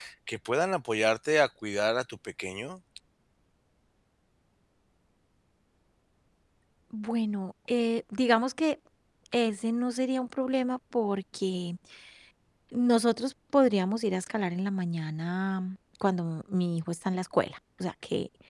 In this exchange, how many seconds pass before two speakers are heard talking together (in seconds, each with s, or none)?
none